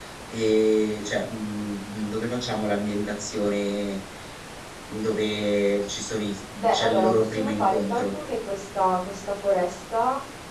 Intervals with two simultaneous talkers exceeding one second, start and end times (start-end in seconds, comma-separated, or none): 6.7-8.1